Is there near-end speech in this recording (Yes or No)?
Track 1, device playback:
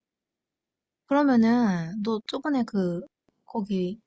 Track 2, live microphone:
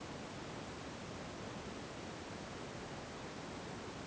No